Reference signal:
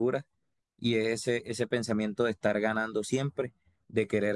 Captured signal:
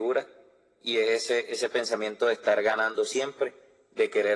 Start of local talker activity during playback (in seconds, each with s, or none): none